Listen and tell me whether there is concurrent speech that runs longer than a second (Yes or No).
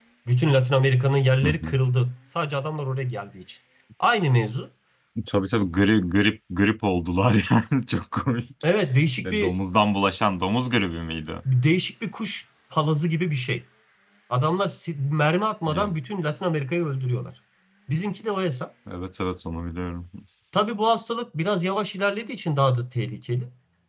No